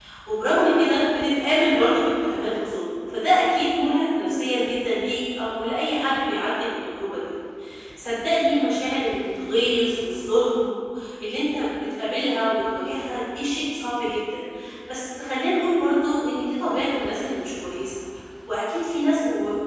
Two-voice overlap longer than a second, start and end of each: none

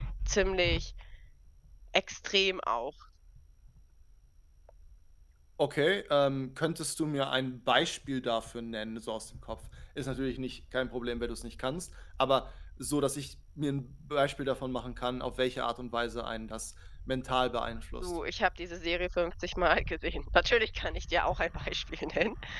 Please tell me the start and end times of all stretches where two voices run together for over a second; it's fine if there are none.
none

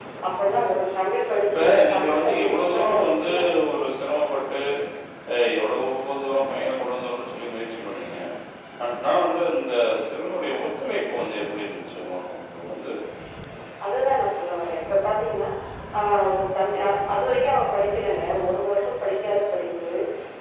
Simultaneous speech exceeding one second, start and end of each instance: 1.5-3.3

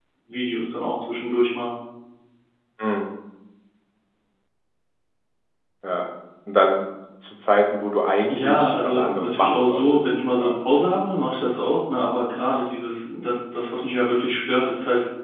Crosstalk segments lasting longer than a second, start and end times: 8.3-10.6

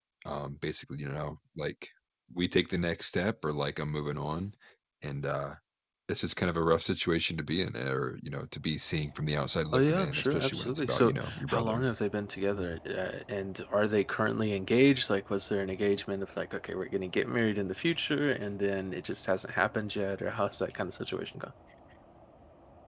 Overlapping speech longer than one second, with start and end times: 9.7-11.8

